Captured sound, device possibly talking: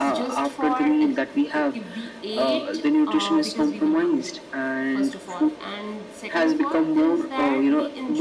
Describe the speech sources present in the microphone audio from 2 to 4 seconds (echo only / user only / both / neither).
both